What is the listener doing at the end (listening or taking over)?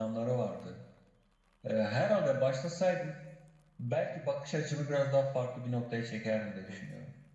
taking over